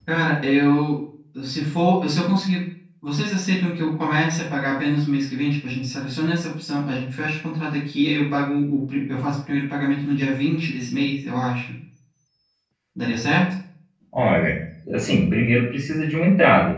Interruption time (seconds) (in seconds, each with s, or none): none